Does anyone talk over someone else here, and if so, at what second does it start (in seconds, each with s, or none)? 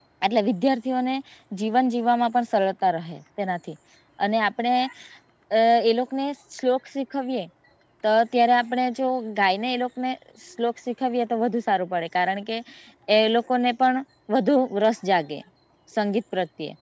none